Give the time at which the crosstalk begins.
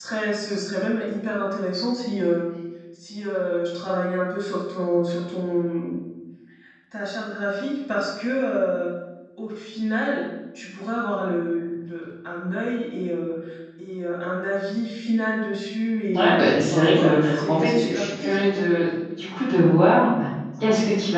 16 s

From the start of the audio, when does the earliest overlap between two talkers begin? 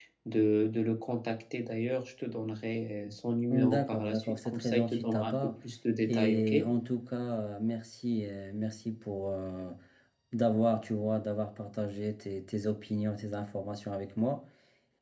4 s

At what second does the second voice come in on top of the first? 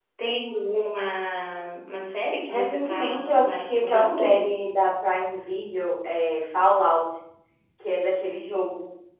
2 s

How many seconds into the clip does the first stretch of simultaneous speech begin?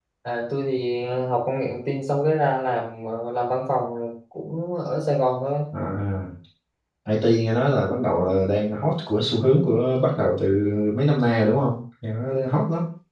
none

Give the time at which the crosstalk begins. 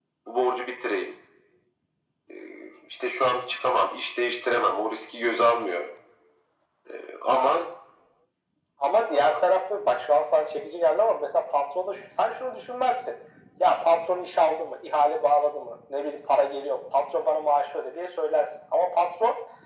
none

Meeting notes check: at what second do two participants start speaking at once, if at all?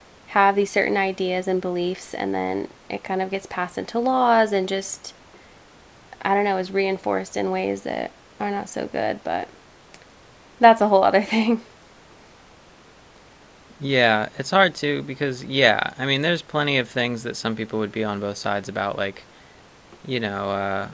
none

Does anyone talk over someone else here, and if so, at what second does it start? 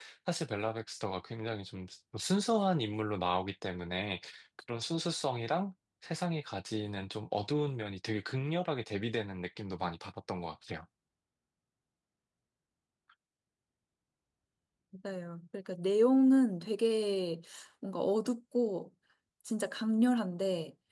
none

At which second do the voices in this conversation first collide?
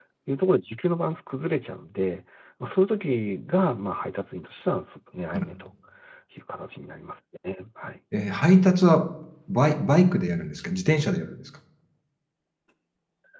none

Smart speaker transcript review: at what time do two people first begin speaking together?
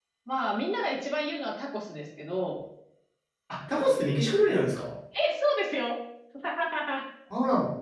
none

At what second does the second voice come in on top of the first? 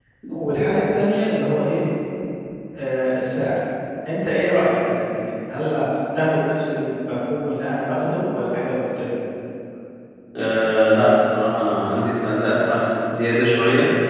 none

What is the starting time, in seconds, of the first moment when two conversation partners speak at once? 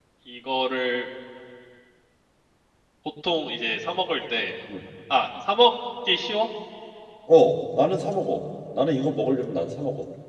none

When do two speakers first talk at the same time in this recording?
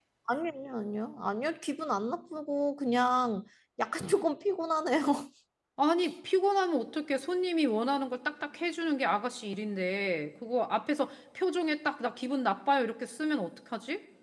none

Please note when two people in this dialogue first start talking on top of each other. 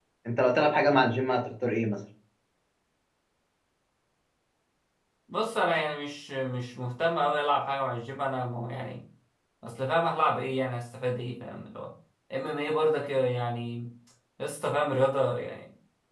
none

